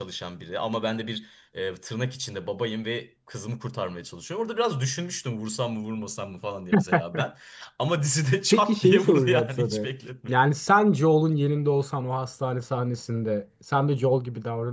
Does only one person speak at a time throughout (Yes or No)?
No